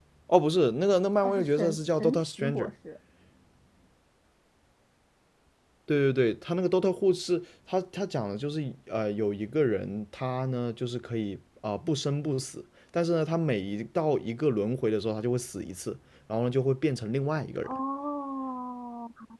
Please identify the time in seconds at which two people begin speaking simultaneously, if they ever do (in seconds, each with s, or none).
1.2 s